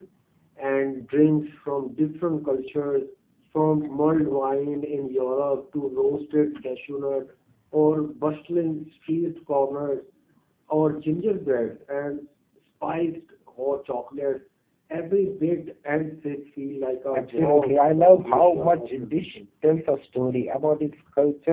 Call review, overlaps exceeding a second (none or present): present